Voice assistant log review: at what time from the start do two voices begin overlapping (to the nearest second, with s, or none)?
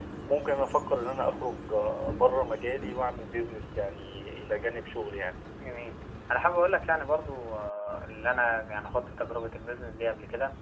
none